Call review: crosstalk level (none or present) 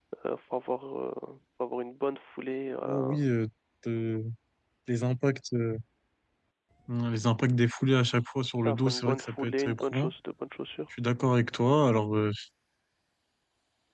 present